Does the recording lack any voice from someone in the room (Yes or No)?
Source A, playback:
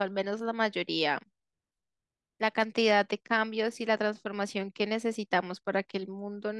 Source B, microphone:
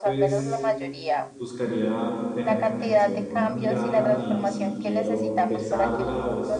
No